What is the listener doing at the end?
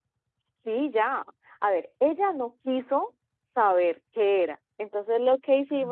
listening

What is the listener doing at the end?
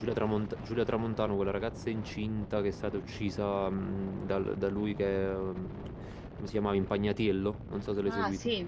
taking over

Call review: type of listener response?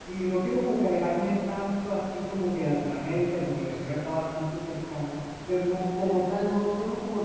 listening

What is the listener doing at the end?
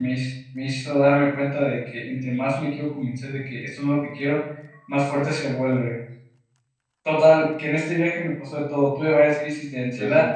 listening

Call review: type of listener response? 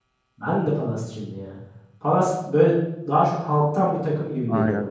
taking over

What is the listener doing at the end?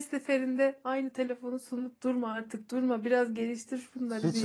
taking over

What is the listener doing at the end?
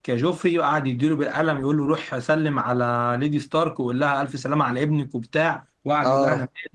listening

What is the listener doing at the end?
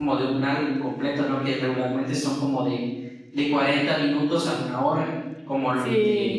listening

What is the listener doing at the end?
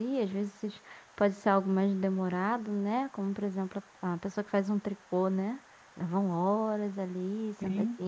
listening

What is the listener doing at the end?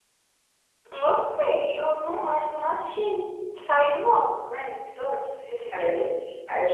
taking over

